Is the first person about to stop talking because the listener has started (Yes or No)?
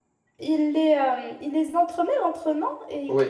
No